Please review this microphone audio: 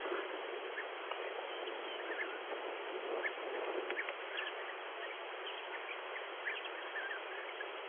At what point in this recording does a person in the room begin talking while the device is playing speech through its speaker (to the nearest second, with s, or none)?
none